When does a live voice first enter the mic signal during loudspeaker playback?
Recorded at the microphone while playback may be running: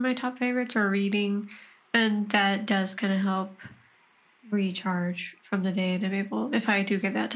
none

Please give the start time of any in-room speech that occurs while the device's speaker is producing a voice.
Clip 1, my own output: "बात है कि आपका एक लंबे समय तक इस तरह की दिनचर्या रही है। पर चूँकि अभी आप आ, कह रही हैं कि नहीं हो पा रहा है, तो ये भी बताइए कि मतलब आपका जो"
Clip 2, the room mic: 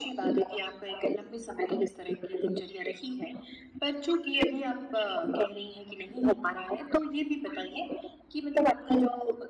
none

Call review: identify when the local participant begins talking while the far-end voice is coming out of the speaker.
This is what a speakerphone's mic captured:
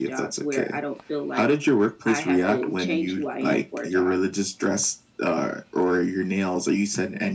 none

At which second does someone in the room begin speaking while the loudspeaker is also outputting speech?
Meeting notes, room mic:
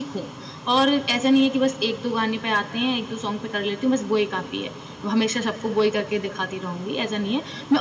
none

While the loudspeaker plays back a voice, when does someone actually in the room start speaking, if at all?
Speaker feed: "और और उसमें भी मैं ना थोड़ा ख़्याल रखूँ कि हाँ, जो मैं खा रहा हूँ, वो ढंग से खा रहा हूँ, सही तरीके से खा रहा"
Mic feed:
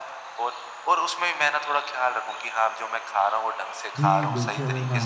4.0 s

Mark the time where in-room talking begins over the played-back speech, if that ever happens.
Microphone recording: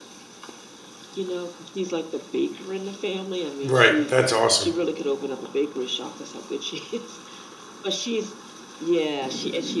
3.6 s

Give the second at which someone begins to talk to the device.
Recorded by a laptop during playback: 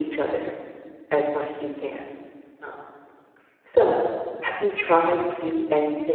none

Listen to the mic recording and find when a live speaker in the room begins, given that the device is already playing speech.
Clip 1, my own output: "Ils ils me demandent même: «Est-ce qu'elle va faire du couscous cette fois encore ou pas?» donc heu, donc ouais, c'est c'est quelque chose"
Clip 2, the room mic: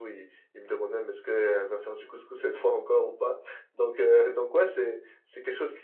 none

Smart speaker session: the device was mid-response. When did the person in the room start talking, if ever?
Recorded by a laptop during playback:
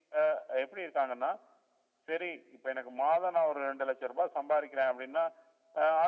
none

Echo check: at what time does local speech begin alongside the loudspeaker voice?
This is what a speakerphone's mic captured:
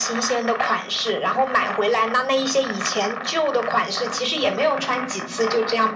none

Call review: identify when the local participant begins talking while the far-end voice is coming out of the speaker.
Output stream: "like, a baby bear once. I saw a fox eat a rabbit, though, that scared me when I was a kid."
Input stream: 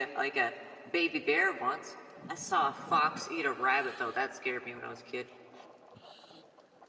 none

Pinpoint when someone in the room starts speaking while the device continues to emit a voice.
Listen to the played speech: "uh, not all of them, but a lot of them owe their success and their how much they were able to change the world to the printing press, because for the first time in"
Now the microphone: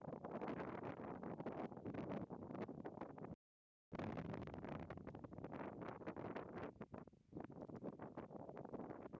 none

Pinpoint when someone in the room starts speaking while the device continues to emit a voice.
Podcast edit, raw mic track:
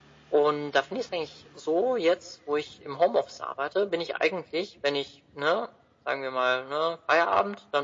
none

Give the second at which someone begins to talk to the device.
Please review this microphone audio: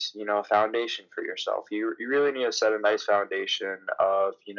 none

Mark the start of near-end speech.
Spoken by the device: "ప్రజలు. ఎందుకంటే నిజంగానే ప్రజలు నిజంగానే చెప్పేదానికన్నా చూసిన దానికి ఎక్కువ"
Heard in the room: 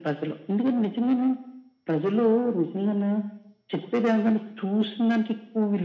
none

